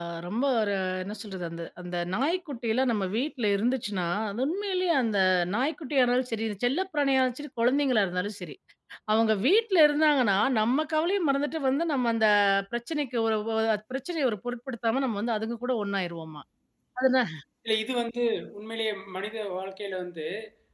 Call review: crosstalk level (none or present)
none